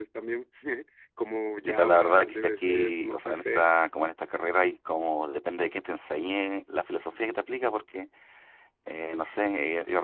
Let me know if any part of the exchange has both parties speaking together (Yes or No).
Yes